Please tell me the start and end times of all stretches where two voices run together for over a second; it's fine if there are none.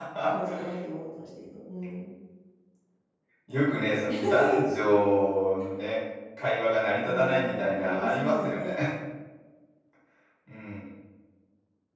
7.0-8.7

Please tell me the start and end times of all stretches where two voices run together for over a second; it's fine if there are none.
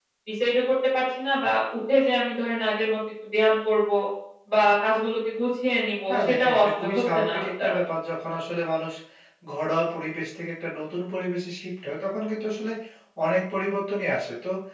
6.1-7.8

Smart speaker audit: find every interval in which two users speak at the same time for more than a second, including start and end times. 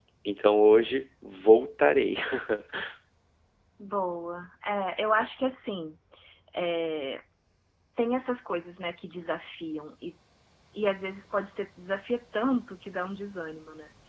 none

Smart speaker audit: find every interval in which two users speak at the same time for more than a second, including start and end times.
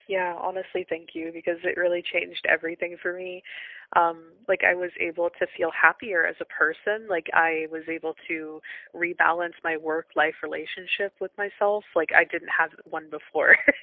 none

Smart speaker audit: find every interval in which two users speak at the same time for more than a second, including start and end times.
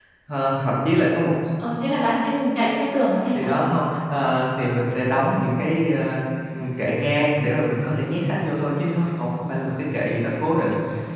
none

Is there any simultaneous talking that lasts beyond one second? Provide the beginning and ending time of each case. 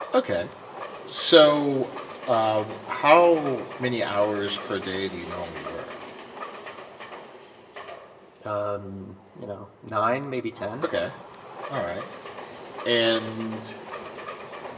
none

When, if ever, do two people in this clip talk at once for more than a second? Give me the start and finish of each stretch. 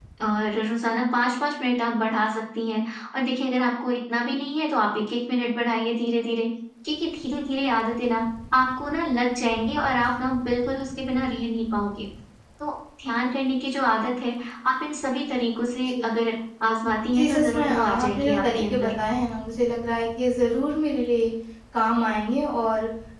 17.1-18.9

